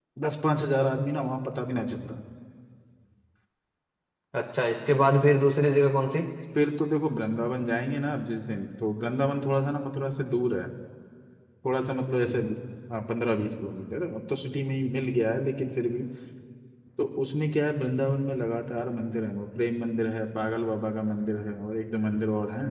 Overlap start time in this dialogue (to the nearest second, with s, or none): none